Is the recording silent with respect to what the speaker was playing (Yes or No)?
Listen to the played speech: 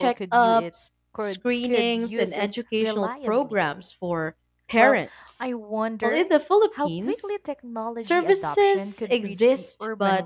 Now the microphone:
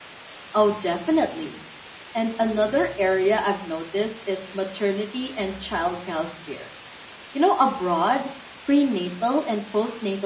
Yes